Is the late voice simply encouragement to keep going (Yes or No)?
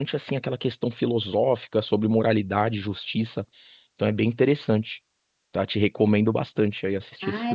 No